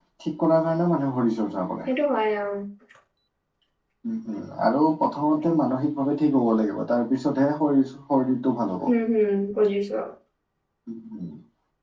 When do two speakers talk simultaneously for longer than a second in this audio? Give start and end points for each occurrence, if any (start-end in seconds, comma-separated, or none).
none